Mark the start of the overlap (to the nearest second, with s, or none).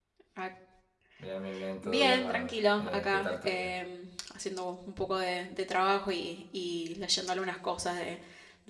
2 s